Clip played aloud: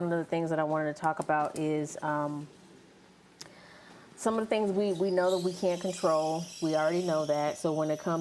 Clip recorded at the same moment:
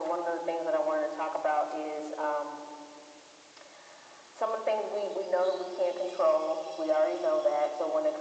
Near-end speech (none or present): none